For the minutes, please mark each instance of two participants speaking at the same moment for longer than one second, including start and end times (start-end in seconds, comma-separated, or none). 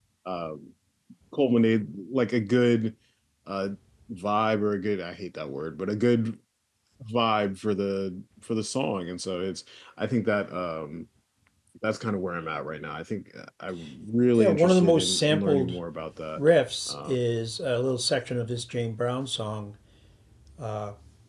14.3-15.8